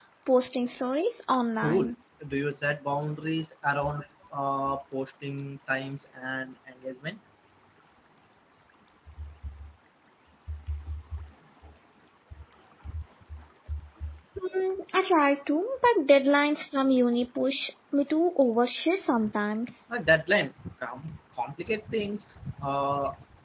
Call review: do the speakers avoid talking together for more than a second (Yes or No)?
Yes